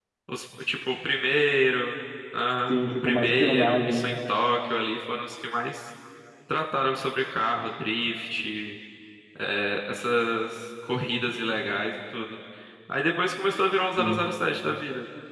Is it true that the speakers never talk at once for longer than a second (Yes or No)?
No